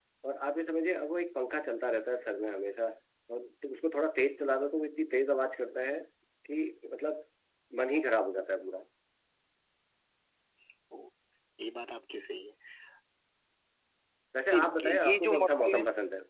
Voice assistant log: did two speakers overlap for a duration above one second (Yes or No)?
Yes